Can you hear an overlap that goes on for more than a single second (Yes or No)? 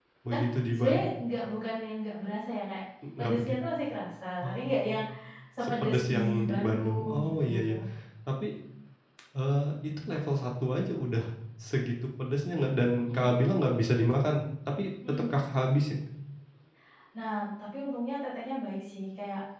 Yes